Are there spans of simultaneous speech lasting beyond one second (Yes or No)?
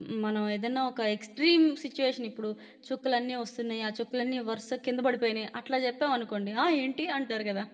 No